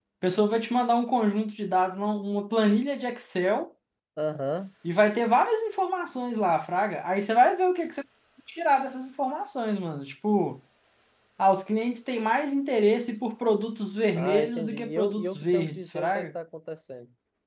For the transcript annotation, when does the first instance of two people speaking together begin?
14.2 s

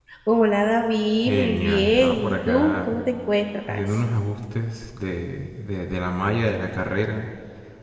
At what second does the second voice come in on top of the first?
1.3 s

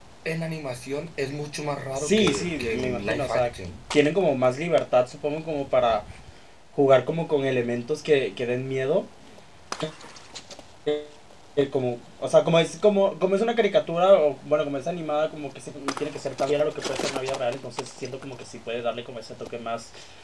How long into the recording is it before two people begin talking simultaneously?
1.9 s

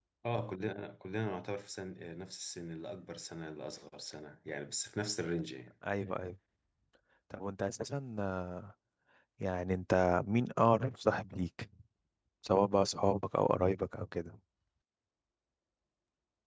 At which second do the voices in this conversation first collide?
none

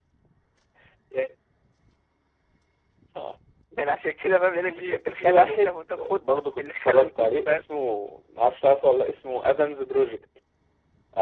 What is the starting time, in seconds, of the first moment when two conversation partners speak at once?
4.7 s

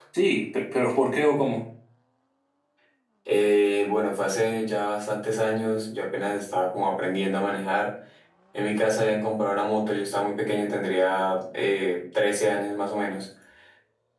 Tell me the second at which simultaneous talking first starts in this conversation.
none

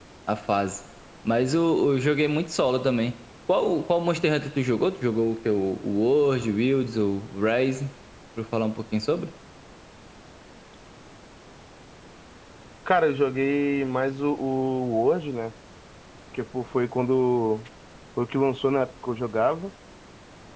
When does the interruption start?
none

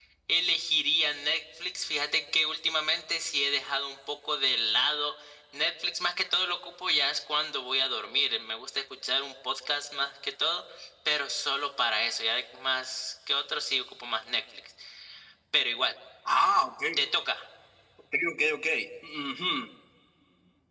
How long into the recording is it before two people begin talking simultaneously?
none

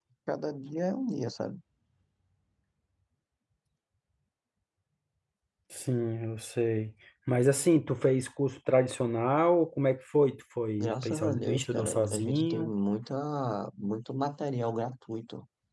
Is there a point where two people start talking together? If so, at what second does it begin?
10.8 s

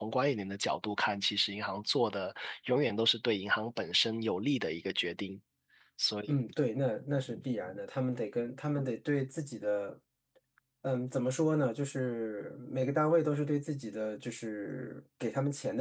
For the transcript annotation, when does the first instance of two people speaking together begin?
none

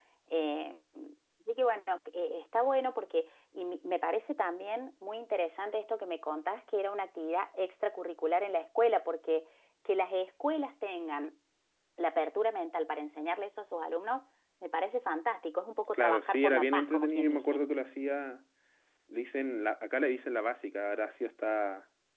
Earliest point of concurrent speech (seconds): 15.9 s

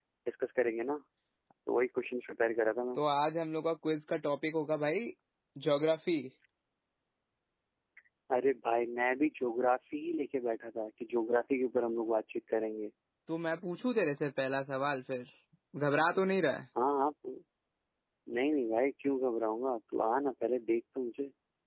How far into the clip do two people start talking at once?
none

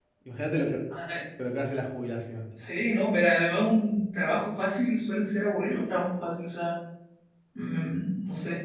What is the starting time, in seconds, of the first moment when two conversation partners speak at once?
none

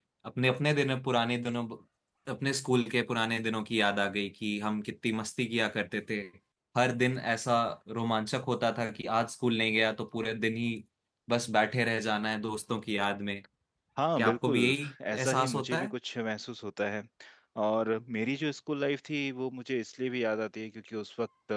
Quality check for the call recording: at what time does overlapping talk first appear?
14.2 s

